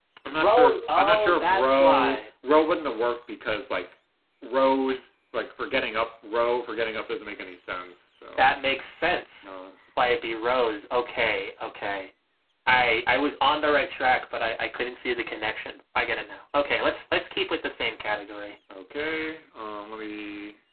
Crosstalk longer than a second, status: present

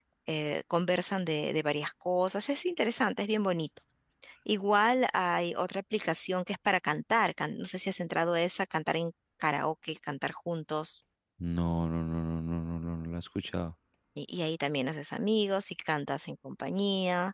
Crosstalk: none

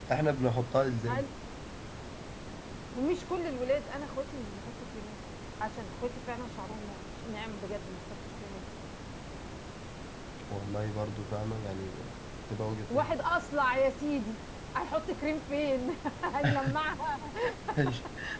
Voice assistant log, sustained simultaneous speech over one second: none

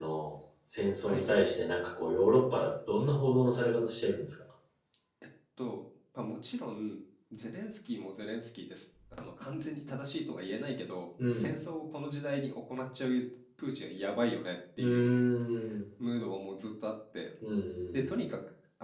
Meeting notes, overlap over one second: none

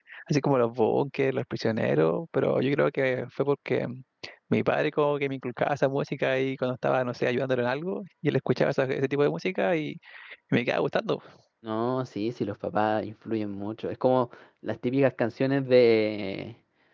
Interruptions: none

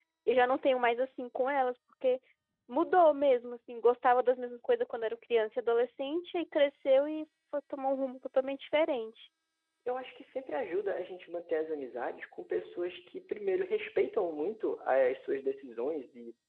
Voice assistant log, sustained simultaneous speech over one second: none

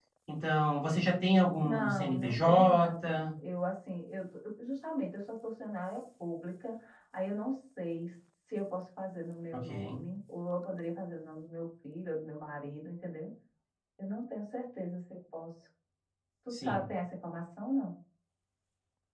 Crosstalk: present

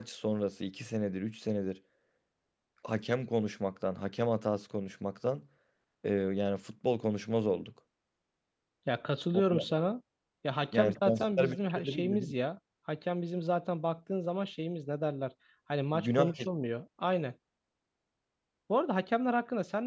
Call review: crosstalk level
present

